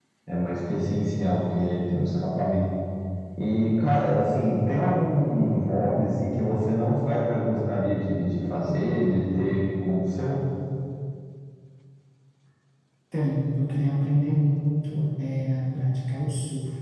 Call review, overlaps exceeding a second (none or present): none